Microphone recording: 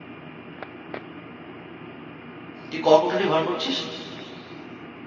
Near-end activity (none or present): present